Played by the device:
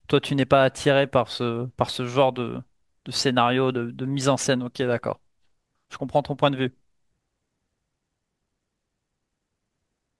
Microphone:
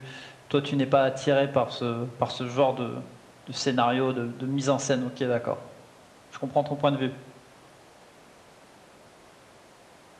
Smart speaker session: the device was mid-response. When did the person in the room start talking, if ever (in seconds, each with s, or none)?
none